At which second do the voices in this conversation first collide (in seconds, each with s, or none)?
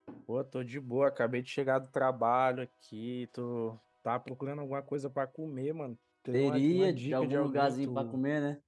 6.3 s